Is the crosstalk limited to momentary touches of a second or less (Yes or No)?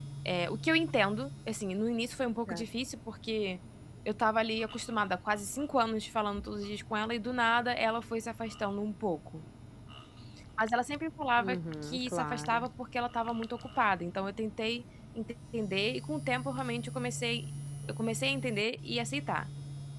No